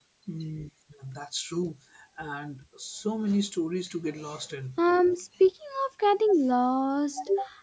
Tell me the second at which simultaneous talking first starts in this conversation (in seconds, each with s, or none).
none